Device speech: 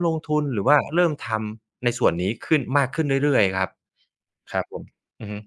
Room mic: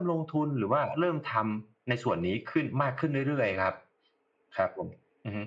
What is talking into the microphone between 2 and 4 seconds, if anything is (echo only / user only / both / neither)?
echo only